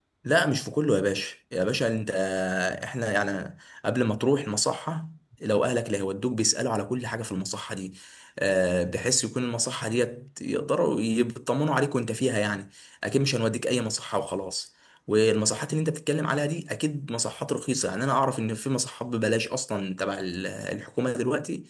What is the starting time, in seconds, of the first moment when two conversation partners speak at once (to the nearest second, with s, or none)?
none